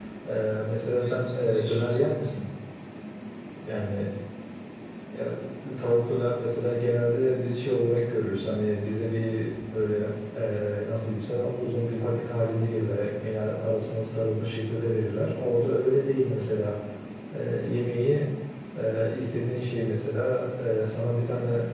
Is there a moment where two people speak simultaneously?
Yes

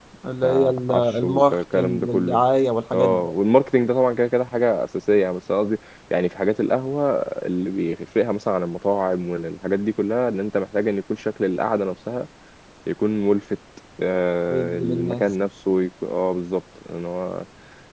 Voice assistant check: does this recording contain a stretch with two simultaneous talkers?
Yes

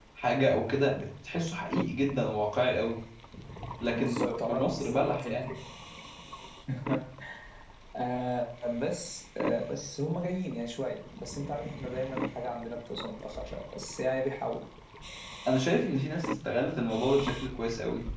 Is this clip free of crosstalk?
No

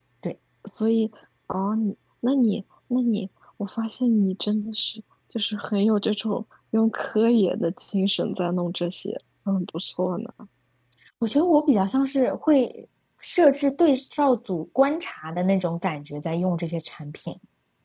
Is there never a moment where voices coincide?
Yes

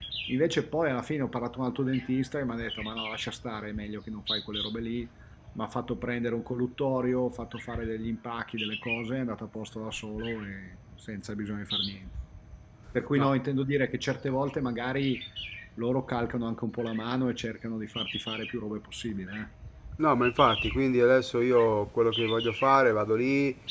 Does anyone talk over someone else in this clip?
No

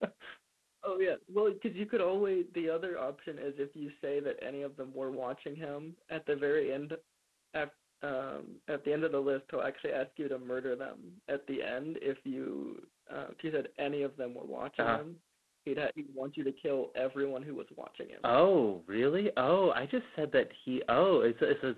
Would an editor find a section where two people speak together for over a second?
No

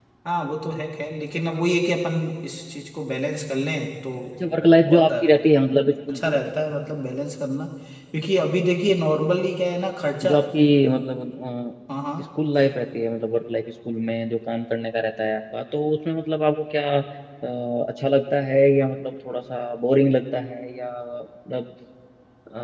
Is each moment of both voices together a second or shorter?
Yes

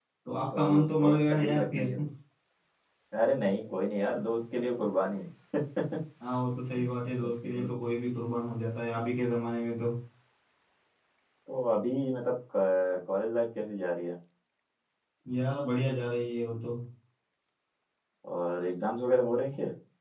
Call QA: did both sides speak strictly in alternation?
No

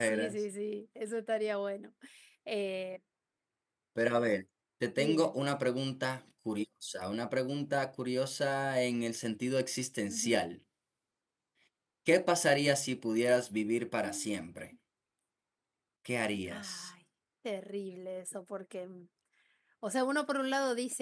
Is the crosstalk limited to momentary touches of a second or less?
Yes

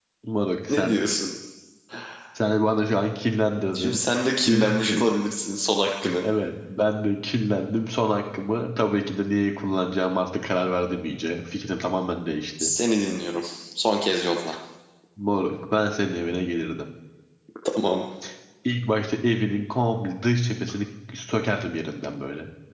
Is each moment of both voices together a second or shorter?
Yes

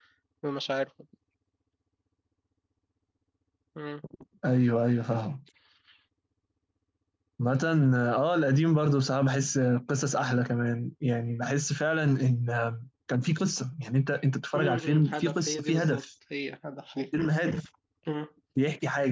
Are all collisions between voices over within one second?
No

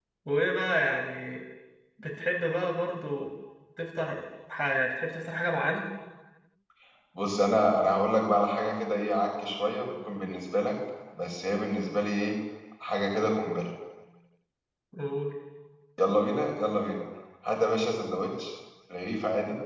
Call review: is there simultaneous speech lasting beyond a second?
No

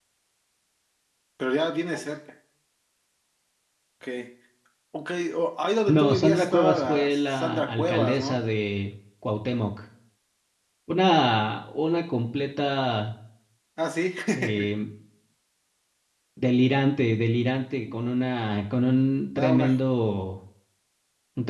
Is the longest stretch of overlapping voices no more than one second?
No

